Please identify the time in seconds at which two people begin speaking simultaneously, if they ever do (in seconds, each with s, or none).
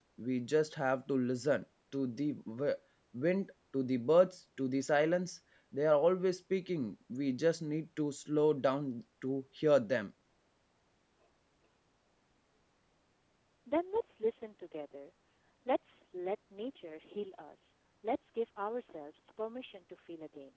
none